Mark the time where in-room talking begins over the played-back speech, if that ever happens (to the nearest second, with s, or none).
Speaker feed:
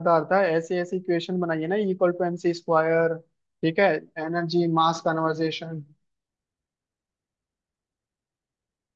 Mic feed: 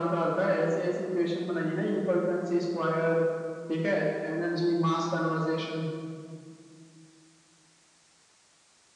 none